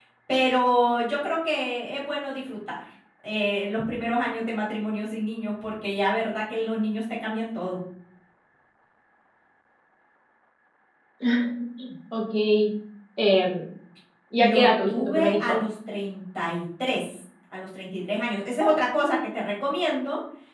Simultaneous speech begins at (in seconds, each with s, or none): 14.4 s